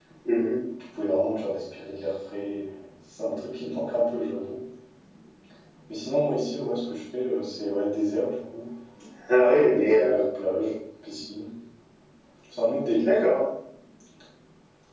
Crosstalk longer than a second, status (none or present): none